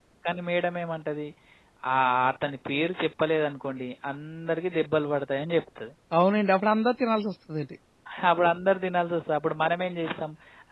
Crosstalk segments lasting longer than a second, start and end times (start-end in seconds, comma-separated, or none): none